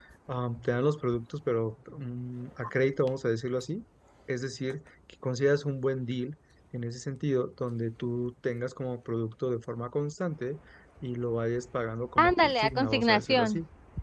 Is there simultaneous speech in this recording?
Yes, from 12.2 s

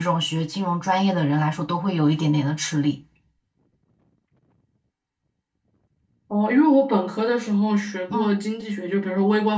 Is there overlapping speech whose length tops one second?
No

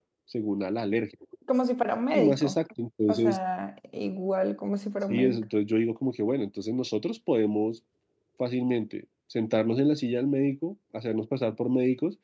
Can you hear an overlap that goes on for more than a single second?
No

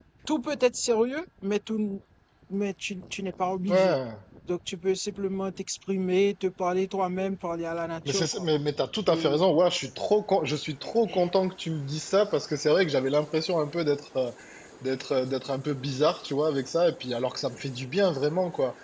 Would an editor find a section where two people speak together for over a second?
No

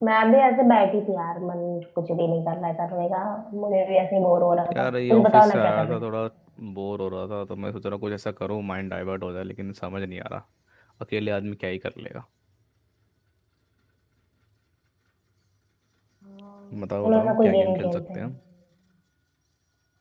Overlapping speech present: Yes, from 4.7 s

